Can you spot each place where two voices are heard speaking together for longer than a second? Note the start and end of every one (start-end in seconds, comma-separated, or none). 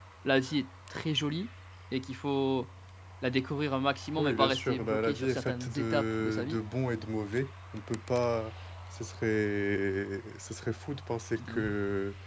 4.2-6.6